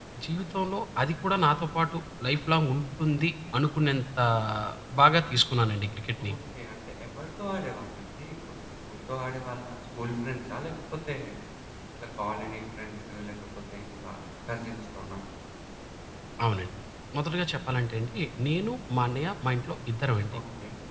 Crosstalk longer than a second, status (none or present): none